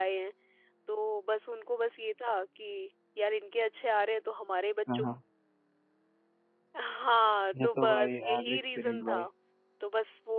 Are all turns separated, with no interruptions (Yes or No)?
No